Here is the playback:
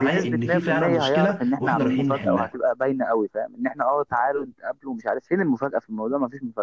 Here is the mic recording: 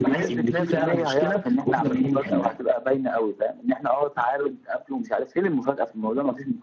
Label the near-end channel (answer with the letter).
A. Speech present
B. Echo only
B